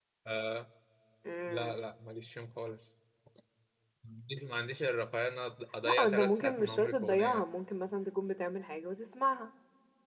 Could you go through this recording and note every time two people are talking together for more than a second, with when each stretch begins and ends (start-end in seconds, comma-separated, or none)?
5.8-7.4